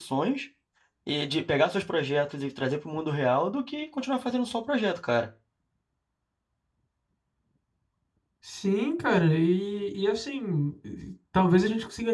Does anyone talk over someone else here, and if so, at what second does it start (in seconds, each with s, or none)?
none